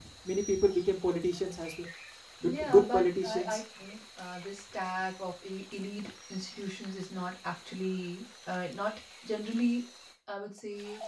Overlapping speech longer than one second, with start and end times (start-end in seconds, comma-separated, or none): 2.4-3.6